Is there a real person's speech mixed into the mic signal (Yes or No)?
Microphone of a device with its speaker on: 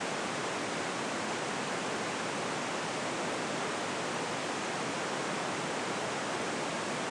No